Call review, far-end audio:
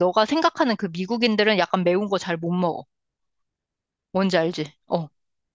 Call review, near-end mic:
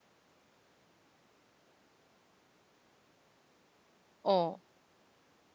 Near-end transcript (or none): 어,